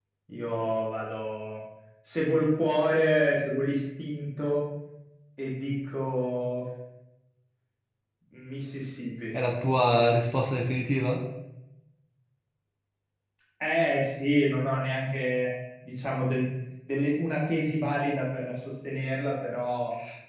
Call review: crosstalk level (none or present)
none